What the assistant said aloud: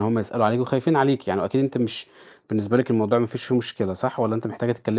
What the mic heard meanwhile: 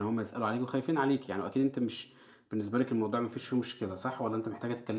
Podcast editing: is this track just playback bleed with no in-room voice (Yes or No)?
Yes